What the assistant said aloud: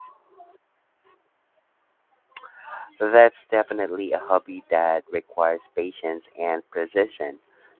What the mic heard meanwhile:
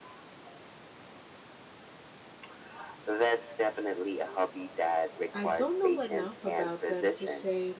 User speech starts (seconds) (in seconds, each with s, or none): 5.3 s